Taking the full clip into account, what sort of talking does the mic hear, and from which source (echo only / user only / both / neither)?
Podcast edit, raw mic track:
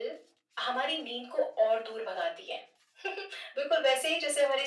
echo only